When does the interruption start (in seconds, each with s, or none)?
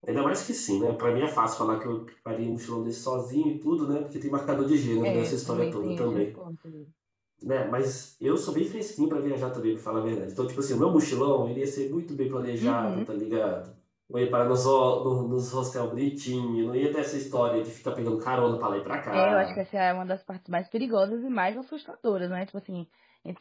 5.0 s